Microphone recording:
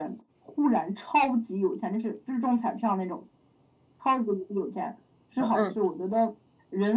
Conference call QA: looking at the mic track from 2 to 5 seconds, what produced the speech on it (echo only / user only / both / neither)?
echo only